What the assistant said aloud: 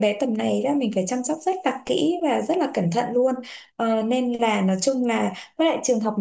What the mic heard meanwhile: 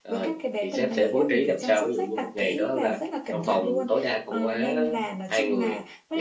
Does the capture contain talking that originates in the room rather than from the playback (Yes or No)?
Yes